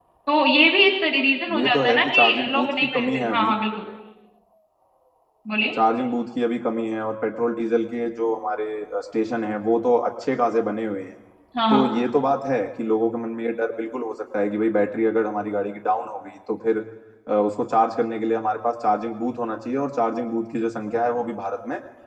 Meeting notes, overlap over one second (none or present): present